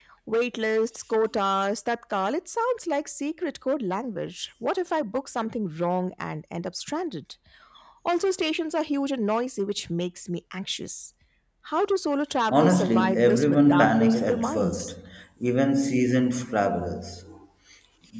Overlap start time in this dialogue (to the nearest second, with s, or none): 12 s